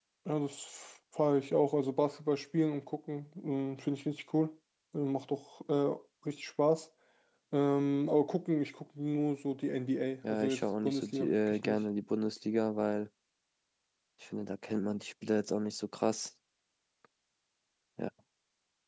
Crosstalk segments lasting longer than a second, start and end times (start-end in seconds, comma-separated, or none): 10.2-11.8